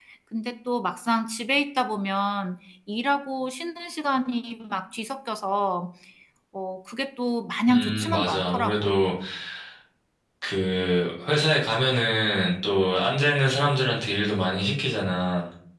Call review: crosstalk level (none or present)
present